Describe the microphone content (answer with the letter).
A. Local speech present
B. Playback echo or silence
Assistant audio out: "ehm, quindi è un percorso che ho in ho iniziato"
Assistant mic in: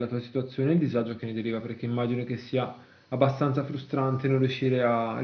A